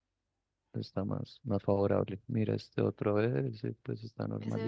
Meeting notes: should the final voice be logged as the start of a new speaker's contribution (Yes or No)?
Yes